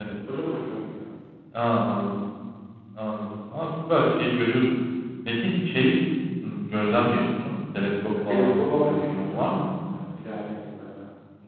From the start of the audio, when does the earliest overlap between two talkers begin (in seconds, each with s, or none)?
8.3 s